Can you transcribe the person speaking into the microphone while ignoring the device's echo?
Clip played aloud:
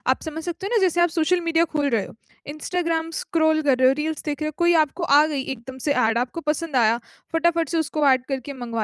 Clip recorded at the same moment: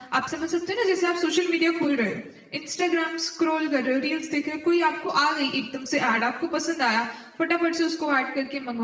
none

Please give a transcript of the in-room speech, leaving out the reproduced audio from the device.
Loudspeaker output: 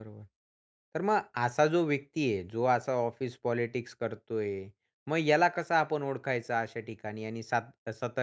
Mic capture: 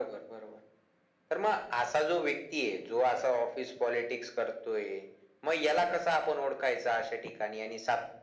none

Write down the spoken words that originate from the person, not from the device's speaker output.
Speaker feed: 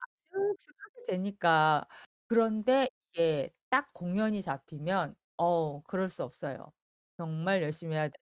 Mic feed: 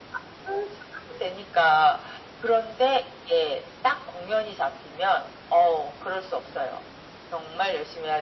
none

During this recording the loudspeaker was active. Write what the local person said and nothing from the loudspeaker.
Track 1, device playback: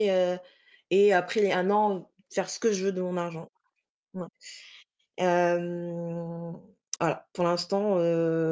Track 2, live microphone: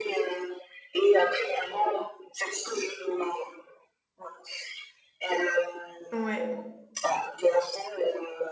Ouais, heu

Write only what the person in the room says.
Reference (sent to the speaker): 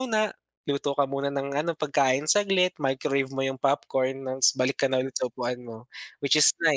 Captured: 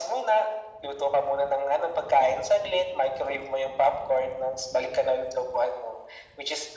none

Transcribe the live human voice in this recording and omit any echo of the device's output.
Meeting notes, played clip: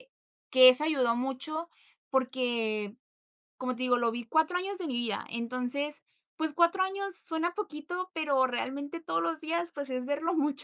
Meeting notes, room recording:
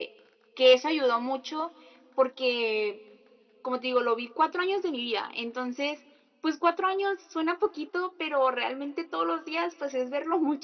none

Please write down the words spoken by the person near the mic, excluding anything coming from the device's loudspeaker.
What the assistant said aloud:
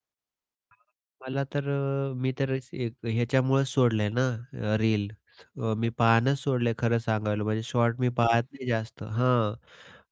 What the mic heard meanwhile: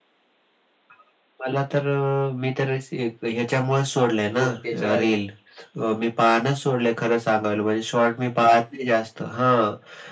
जो त्याच्या

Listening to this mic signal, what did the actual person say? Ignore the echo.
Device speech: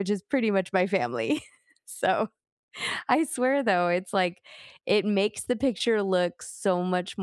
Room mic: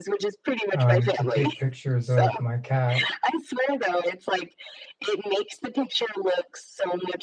um, to take pictures of my cat,

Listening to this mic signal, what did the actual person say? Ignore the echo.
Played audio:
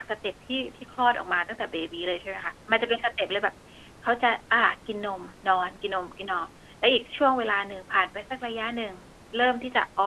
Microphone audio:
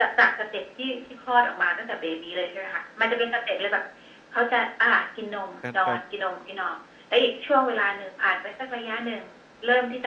แต่ แต่

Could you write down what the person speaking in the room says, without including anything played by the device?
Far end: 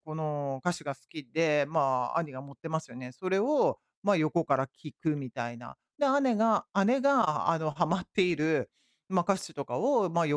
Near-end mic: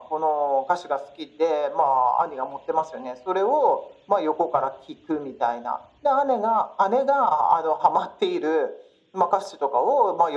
none

